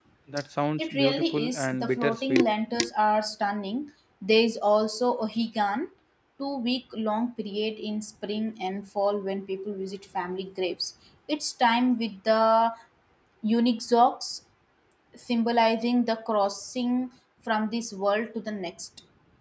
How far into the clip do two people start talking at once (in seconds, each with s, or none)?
0.8 s